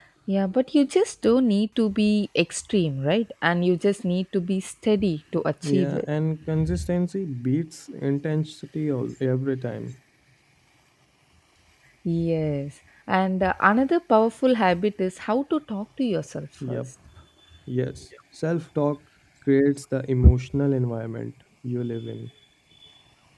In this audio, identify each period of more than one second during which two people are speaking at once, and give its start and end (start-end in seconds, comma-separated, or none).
none